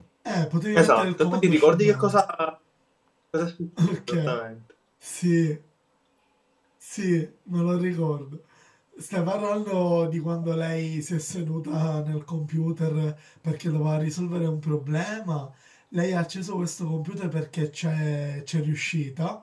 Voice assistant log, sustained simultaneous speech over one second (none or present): present